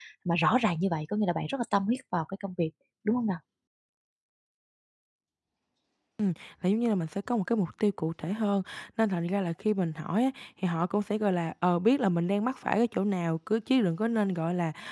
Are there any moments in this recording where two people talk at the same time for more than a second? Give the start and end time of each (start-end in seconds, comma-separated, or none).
none